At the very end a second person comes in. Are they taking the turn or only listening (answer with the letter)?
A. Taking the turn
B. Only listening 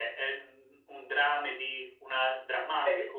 A